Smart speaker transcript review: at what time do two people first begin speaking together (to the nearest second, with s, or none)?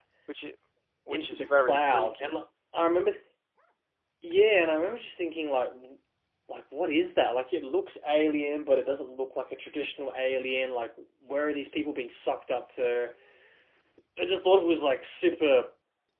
1 s